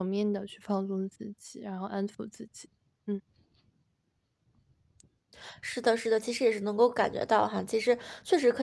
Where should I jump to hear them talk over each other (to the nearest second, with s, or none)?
none